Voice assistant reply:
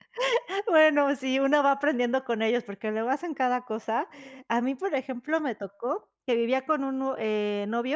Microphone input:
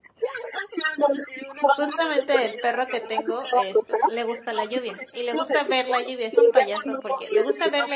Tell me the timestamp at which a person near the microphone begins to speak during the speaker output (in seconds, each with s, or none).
1.8 s